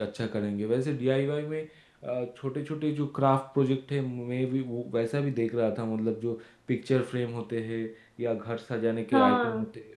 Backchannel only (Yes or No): Yes